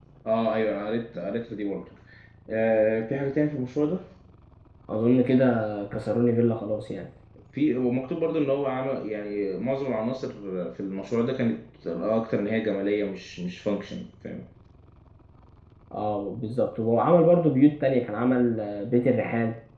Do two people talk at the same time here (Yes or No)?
No